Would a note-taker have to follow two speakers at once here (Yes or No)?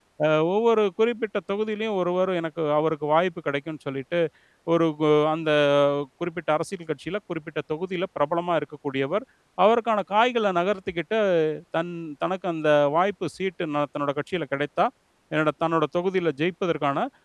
No